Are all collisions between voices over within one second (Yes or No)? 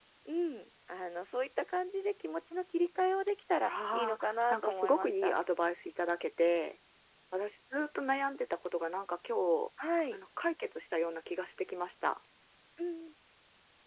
No